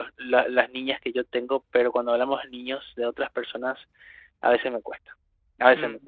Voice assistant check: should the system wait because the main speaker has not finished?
Yes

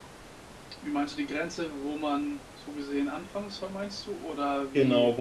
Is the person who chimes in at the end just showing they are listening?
No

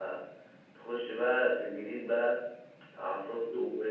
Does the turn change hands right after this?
No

